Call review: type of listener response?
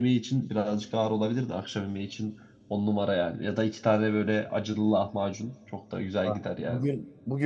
taking over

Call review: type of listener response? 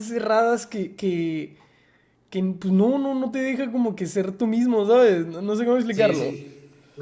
taking over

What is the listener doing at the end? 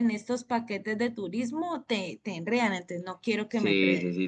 taking over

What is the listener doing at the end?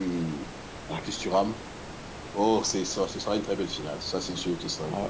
taking over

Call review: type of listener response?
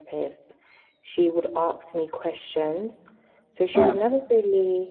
listening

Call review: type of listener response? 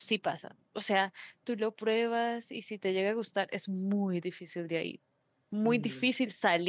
listening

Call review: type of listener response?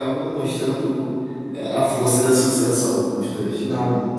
taking over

